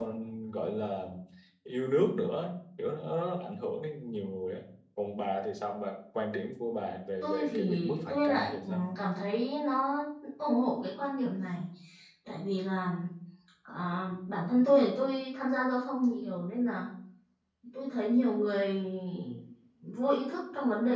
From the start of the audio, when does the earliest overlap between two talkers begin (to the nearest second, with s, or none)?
7 s